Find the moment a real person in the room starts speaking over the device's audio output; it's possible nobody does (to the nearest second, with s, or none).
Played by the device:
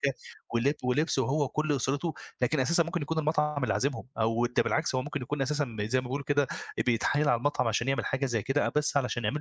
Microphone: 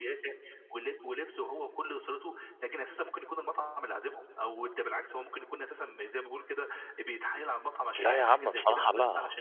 8 s